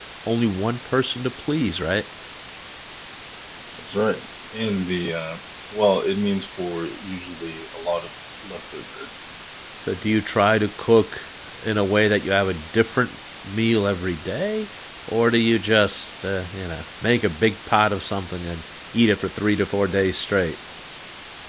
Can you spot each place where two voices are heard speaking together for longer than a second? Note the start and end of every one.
none

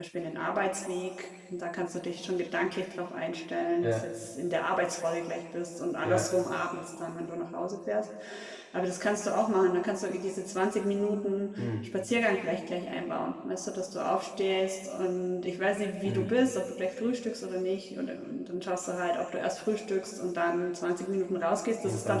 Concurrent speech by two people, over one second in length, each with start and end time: none

